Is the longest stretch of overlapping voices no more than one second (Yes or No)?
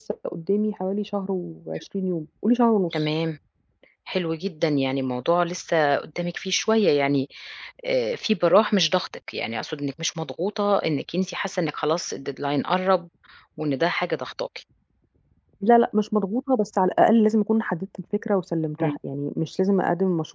Yes